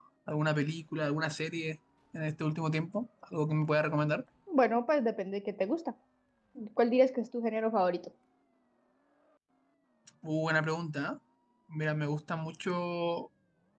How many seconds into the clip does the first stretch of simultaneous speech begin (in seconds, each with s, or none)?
none